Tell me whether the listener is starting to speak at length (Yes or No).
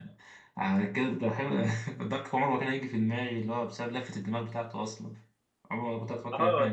Yes